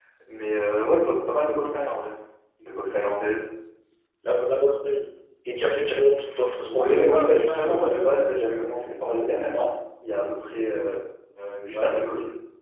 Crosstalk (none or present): present